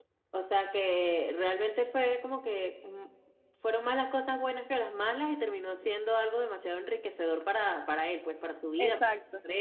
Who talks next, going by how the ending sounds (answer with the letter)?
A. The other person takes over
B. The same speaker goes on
A